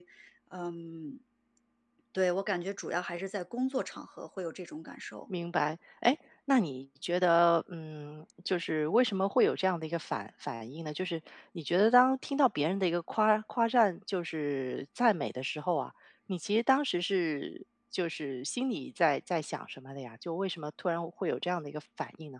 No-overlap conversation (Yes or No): Yes